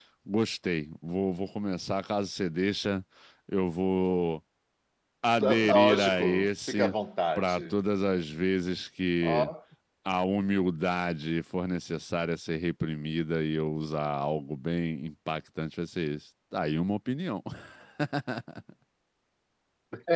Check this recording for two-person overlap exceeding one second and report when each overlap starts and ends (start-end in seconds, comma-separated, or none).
5.7-6.9